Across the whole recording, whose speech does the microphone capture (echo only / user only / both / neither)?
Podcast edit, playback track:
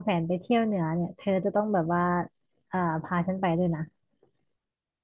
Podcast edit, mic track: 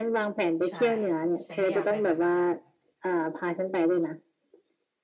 both